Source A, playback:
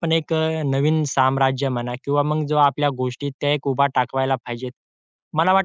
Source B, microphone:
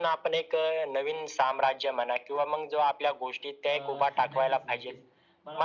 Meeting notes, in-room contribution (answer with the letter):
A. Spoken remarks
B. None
A